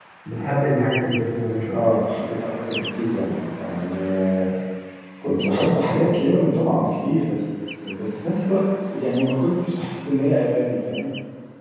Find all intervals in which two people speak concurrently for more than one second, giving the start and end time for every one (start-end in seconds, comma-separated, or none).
none